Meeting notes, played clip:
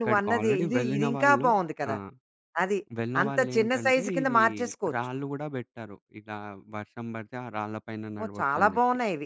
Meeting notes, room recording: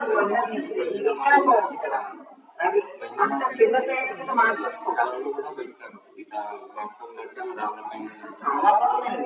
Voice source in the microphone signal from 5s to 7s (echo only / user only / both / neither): echo only